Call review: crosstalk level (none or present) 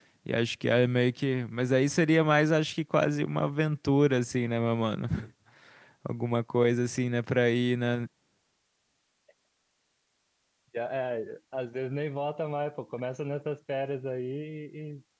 none